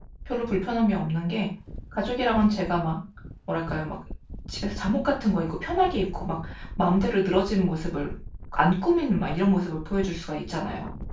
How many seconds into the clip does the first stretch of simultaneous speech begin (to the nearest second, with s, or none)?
none